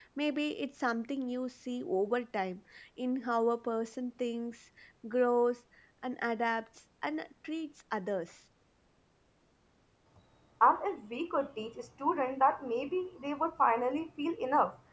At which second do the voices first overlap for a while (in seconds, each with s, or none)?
none